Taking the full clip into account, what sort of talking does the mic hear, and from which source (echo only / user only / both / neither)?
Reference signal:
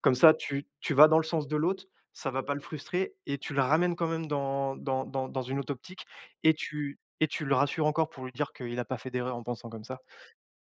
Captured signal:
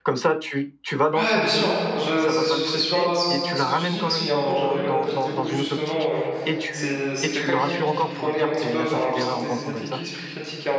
both